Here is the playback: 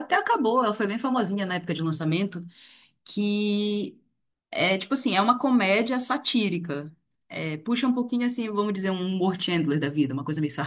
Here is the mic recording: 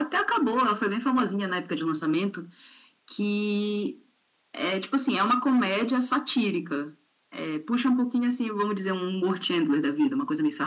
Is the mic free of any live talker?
Yes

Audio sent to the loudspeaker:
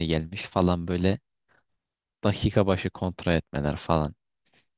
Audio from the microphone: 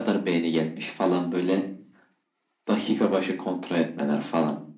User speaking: No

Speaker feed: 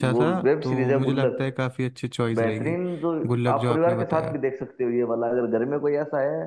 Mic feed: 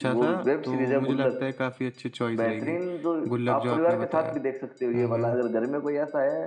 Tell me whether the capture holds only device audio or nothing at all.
No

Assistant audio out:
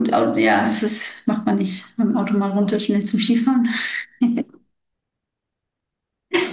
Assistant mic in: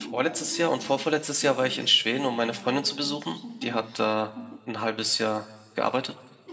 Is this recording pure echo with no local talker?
No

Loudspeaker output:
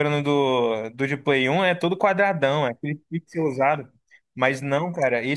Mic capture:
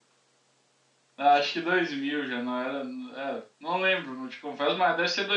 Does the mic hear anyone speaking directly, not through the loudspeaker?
Yes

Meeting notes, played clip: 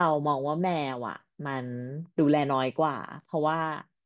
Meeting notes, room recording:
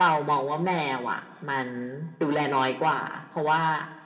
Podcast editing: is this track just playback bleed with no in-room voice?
Yes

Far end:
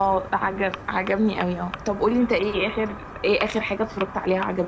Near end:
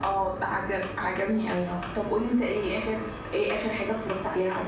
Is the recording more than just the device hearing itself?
No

